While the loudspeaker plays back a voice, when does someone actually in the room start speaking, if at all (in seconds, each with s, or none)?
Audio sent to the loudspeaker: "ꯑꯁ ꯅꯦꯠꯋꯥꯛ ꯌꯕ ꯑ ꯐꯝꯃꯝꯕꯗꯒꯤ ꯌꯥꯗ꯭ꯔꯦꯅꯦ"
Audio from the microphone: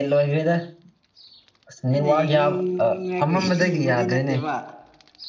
1.9 s